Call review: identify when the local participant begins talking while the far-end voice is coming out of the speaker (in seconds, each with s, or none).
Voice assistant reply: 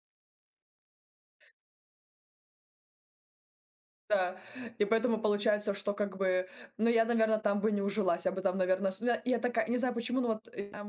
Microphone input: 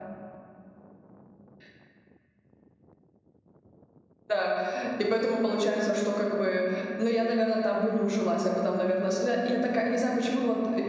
none